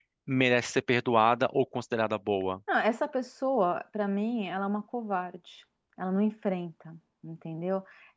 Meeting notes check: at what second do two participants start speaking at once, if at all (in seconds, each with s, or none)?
none